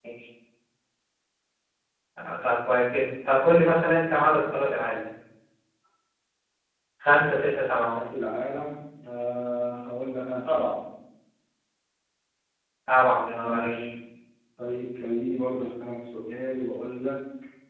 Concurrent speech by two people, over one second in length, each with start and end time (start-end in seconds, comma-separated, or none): none